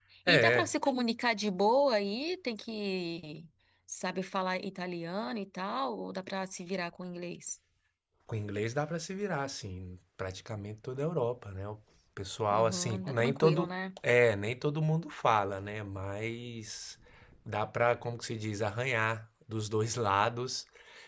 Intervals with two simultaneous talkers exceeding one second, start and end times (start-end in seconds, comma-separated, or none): 12.5-13.7